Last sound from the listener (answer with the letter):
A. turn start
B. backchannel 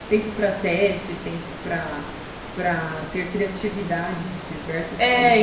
A